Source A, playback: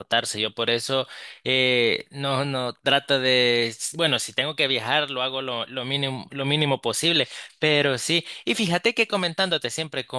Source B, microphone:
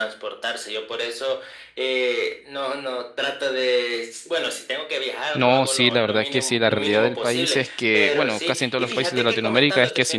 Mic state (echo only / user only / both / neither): both